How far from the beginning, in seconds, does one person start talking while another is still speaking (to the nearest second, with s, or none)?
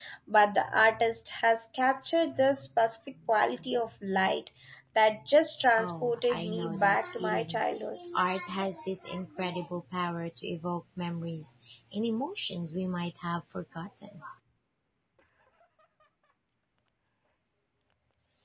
6 s